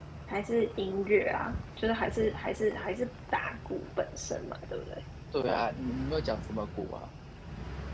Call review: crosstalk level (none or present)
none